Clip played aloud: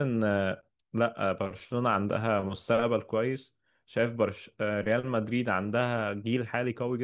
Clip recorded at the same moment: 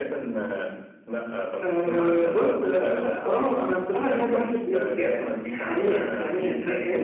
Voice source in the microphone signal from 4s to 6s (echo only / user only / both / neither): both